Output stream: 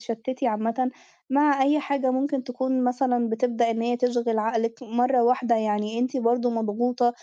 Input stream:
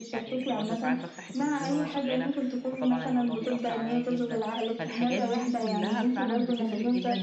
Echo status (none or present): present